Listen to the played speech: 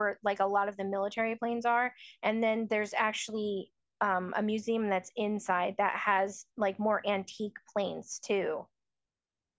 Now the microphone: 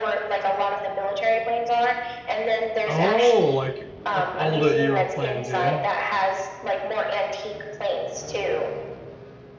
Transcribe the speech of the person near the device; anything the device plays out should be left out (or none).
Oh, like like older era planes, yeah.